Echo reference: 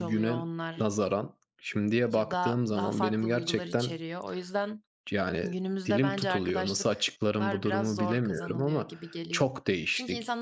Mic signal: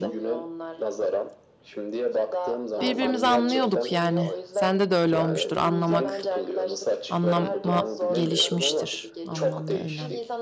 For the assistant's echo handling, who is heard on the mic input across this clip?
both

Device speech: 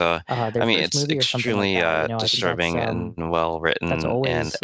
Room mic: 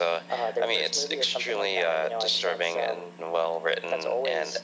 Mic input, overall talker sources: echo only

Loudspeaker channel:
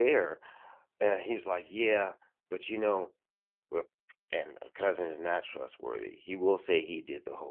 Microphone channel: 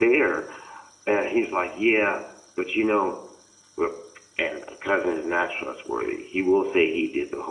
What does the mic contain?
echo only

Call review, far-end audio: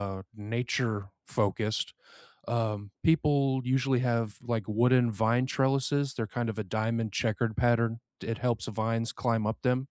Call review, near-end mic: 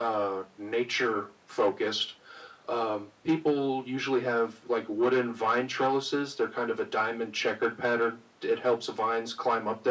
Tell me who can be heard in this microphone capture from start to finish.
echo only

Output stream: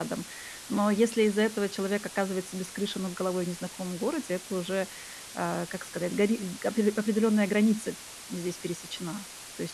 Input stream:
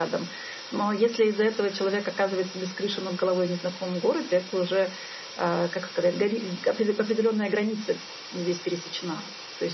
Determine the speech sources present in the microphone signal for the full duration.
echo only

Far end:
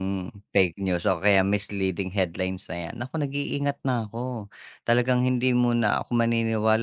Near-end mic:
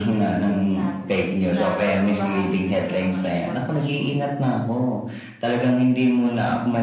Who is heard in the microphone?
both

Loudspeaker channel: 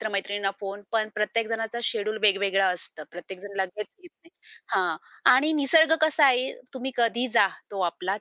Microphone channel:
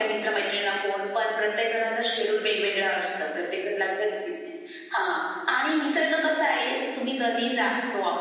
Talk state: echo only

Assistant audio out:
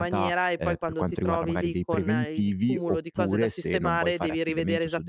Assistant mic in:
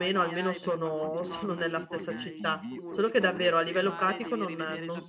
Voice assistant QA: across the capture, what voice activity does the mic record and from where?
both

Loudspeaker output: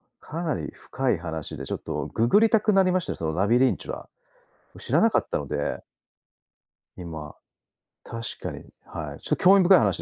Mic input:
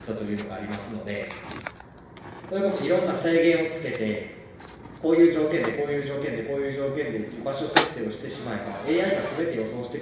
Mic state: user only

